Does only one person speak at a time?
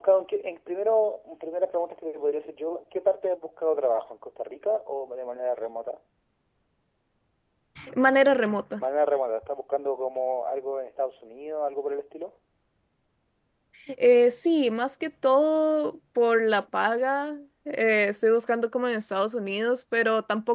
Yes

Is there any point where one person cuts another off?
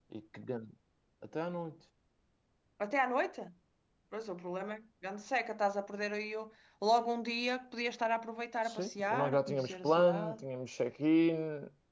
Yes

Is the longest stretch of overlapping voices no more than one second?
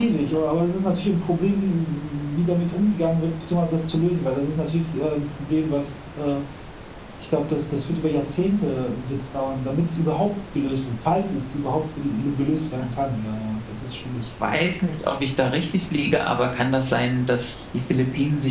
Yes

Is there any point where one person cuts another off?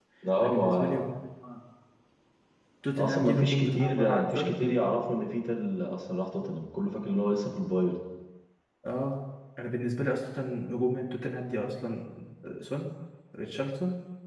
Yes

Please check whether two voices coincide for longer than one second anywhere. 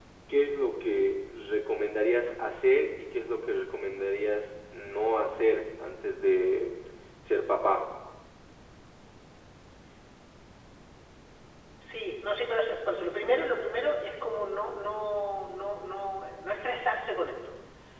No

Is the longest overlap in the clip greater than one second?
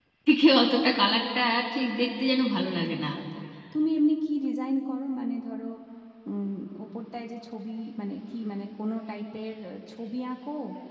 No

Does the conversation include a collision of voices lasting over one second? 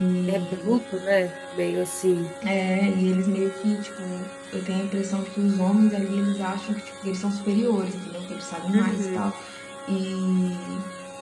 No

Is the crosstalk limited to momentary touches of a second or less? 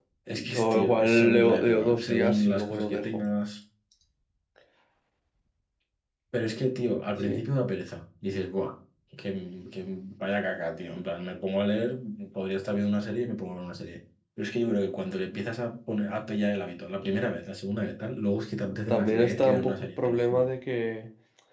No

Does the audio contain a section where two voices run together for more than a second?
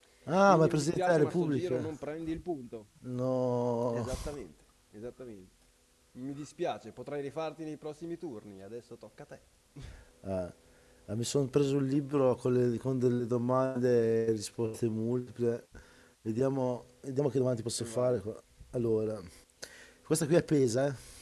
Yes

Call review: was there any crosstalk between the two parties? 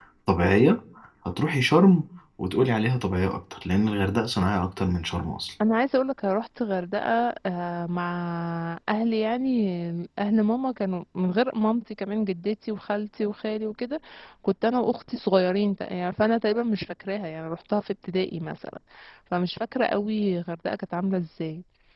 No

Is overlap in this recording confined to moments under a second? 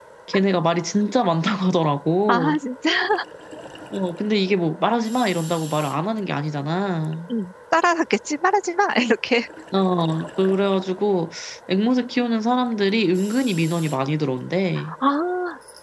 Yes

